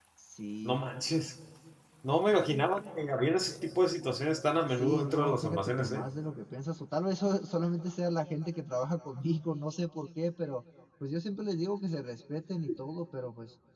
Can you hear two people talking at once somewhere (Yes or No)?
Yes